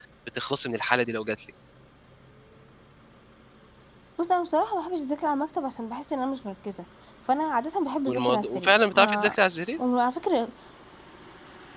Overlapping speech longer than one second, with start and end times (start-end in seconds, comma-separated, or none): 8.1-9.4